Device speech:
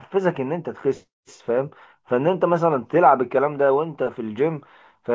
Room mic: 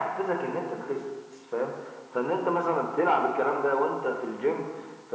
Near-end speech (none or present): none